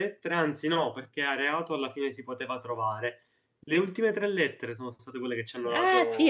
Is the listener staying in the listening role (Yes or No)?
No